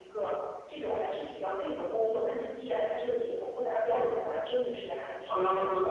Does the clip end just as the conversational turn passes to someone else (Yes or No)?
No